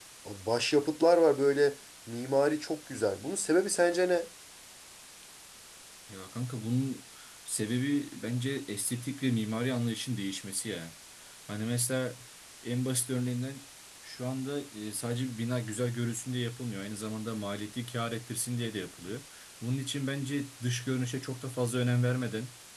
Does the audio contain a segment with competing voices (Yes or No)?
No